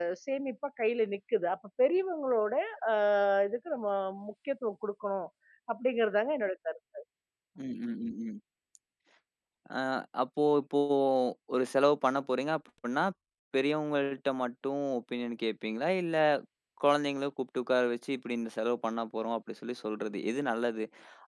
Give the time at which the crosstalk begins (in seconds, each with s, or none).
none